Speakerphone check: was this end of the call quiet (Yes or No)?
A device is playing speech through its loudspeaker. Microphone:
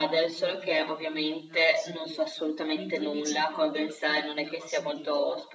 No